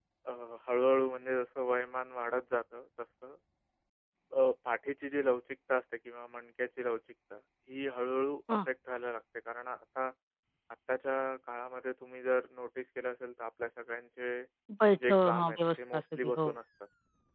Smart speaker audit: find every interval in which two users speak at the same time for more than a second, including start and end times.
15.1-16.5

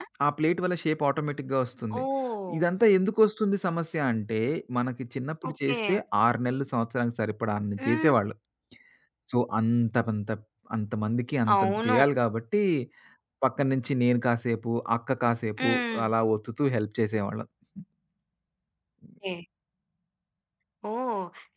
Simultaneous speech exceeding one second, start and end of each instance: none

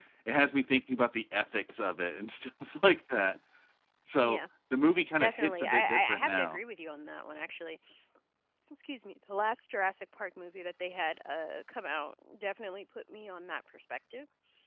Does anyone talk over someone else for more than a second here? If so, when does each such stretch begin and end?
5.2-6.6

